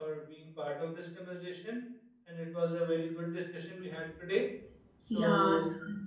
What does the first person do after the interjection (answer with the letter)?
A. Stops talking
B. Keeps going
A